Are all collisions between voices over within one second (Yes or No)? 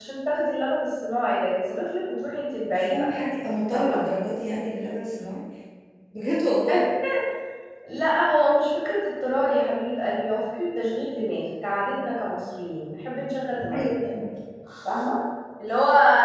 Yes